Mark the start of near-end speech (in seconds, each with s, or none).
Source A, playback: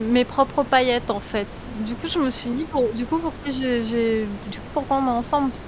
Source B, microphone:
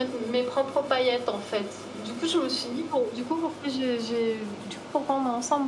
none